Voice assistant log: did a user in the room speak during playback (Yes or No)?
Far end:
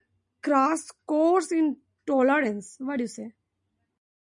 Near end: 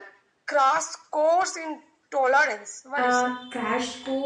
Yes